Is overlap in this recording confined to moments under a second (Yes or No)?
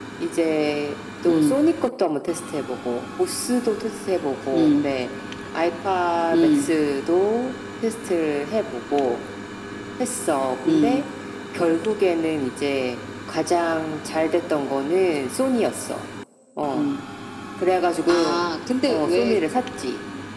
Yes